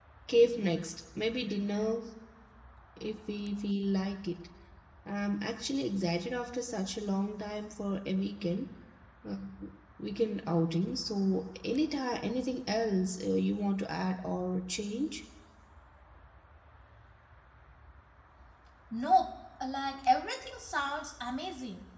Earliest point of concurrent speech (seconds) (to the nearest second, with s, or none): none